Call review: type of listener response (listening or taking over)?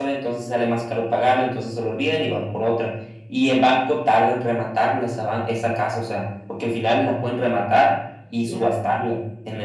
listening